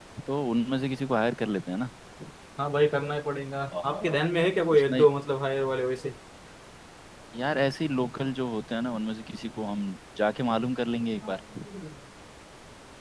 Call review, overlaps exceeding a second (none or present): none